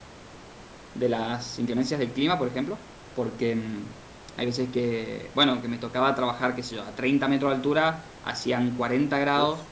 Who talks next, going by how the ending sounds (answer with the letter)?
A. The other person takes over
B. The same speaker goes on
B